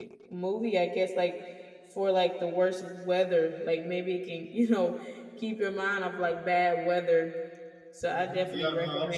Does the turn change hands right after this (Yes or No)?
Yes